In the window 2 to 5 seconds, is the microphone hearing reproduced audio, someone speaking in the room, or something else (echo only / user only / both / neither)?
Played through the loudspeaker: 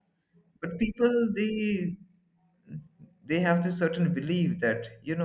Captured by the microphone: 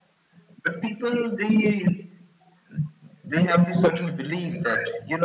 echo only